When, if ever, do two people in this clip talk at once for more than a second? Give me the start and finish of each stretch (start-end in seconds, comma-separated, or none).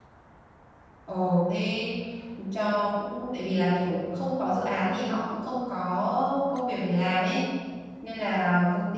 none